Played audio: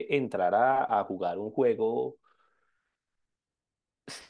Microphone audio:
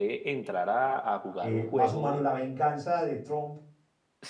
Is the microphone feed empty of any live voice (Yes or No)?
No